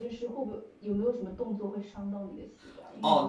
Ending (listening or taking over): taking over